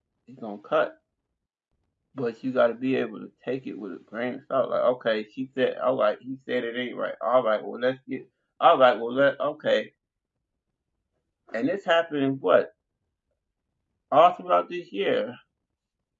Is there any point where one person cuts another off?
No

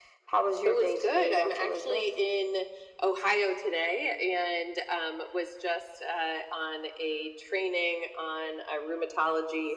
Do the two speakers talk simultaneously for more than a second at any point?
Yes, from 0.7 s

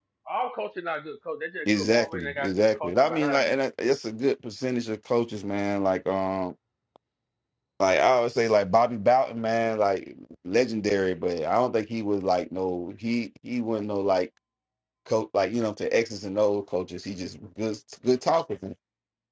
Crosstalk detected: Yes, from 1.7 s

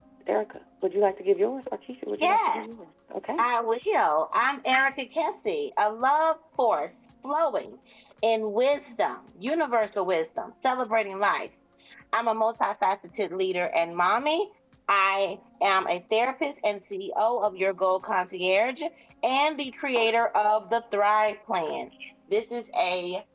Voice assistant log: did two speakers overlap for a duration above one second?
No

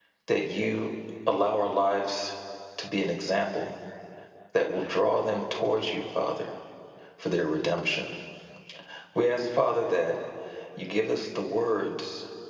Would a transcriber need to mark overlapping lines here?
No

